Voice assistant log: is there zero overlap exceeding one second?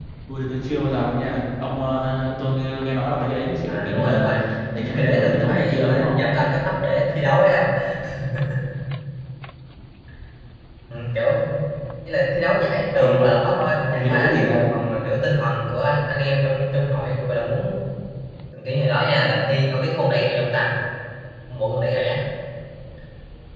No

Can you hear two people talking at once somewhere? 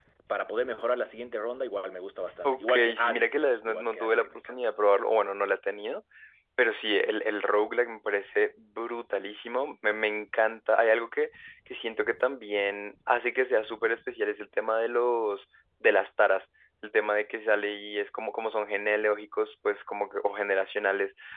Yes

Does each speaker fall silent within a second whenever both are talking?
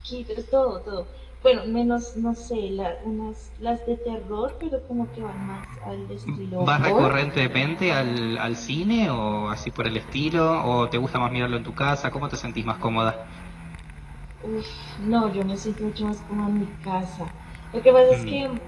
Yes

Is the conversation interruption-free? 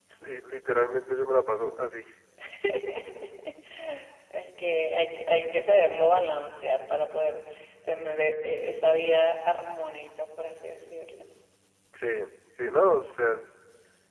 Yes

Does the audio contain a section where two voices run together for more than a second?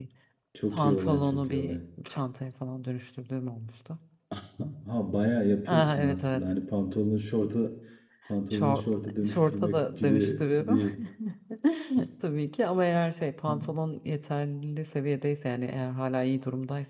Yes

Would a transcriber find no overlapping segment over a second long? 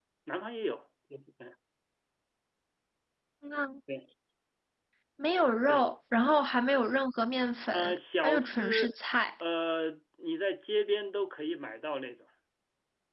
No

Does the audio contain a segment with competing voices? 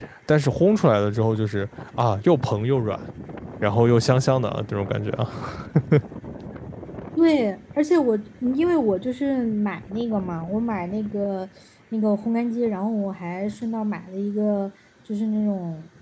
No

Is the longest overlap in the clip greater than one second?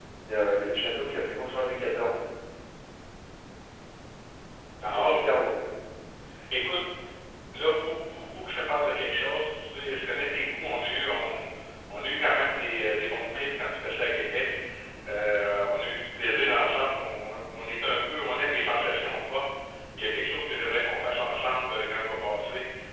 No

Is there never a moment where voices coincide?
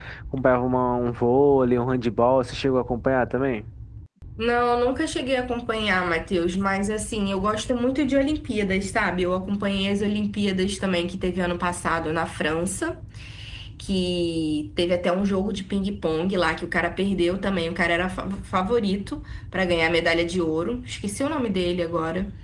Yes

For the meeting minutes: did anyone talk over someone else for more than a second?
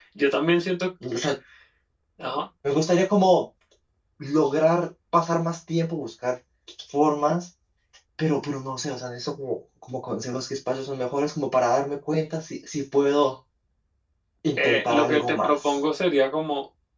Yes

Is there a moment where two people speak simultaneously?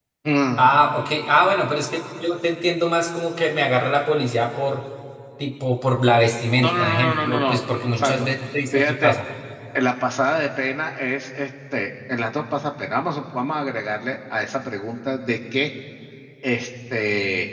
Yes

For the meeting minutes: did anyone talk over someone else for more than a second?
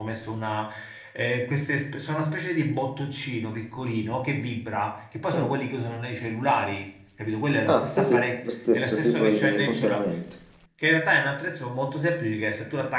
Yes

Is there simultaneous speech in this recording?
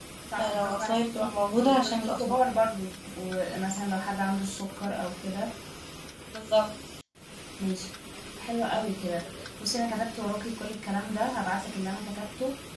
Yes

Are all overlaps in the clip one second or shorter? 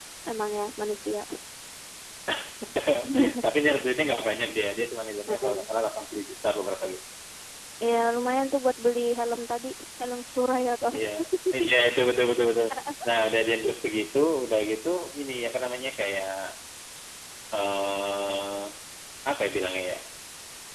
Yes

